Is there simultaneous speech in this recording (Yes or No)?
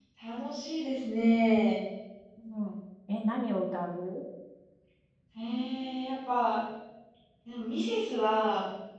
No